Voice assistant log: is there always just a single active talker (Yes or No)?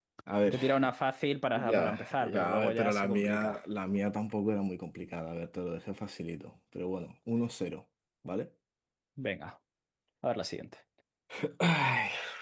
No